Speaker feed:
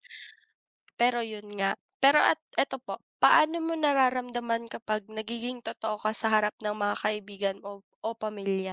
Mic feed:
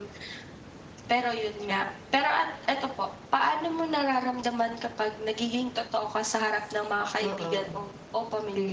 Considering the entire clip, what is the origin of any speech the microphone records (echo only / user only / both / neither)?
both